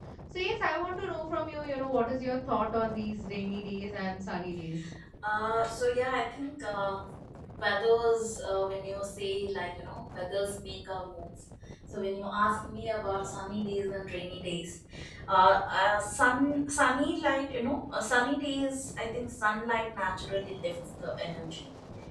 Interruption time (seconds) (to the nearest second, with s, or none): none